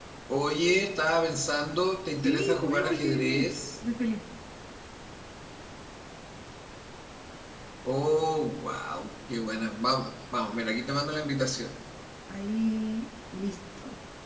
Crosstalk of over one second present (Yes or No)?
Yes